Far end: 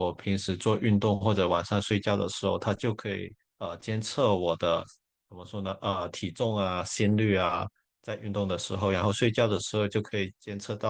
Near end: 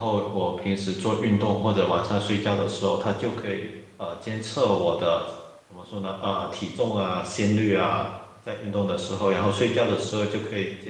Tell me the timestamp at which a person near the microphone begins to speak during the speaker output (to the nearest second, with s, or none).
none